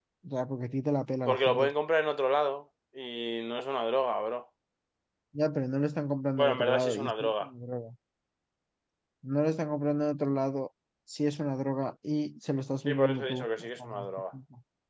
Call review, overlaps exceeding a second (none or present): present